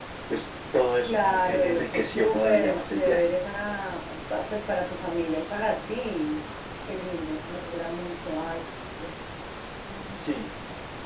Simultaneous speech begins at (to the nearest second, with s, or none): 1 s